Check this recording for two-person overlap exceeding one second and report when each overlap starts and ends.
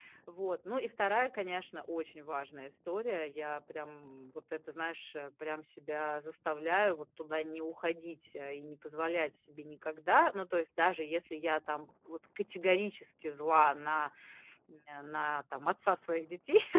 none

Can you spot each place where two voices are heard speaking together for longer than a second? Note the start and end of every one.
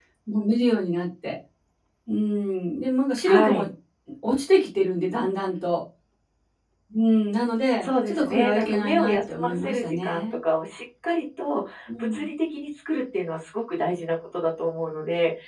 7.8-10.2

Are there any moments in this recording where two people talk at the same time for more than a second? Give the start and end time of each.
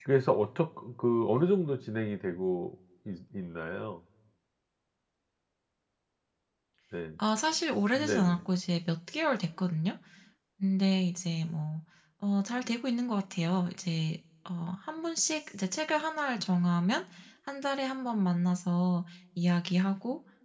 none

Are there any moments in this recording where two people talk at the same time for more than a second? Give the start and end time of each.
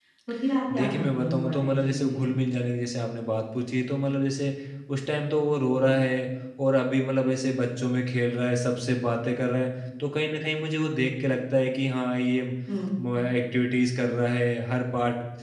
0.7-2.4

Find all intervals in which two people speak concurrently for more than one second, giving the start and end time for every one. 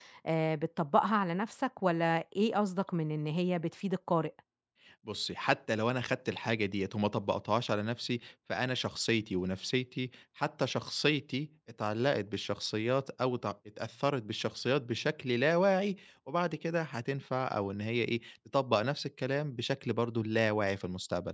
none

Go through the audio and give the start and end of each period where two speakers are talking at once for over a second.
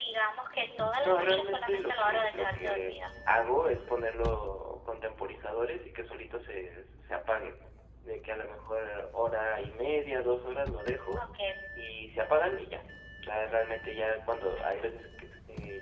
1.0-3.1

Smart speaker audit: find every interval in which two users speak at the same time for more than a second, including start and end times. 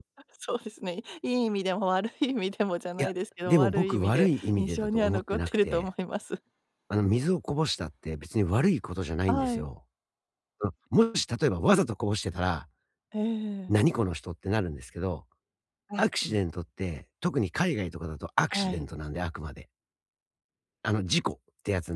3.5-5.9

